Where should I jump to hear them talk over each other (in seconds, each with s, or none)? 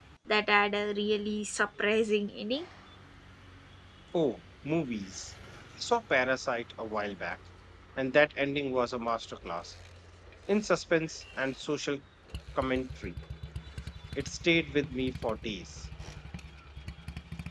none